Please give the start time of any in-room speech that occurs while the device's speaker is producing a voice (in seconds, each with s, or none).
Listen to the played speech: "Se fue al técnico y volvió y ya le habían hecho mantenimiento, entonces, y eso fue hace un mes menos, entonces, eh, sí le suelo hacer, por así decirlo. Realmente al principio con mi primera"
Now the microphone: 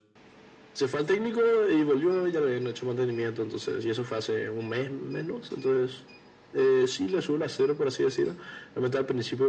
none